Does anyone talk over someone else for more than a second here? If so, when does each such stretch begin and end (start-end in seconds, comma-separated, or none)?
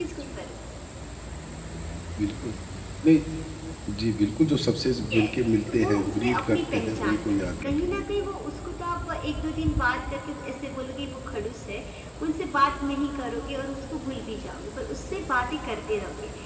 5.7-8.0